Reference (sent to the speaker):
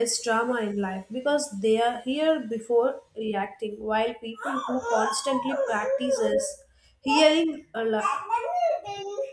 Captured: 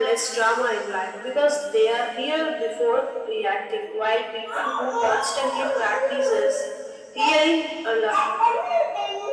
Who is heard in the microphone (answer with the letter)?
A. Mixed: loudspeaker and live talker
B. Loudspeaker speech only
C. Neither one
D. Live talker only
B